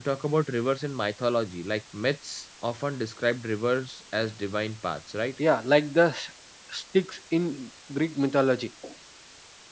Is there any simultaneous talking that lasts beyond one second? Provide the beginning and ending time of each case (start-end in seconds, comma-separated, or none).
none